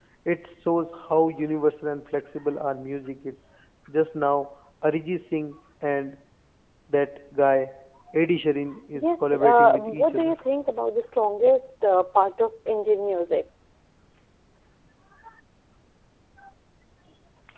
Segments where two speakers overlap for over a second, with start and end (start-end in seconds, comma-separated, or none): 8.9-10.3